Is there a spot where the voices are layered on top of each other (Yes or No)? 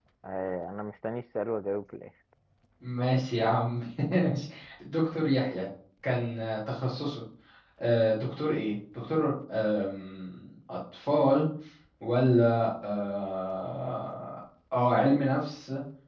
No